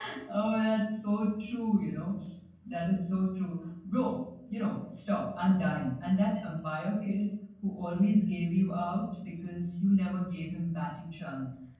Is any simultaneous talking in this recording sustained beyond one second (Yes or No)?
No